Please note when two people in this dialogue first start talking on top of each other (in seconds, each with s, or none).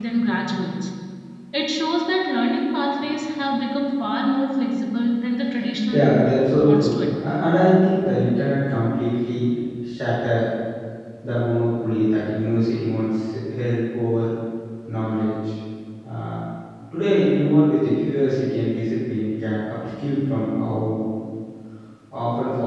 5.9 s